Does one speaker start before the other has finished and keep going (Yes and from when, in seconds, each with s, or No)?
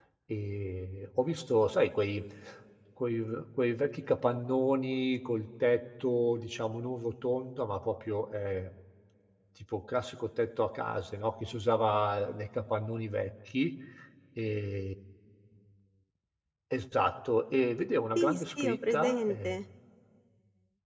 Yes, from 18.2 s